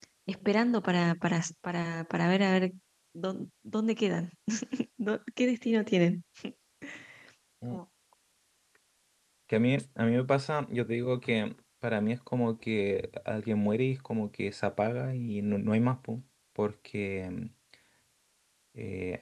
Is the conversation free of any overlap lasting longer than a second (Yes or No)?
Yes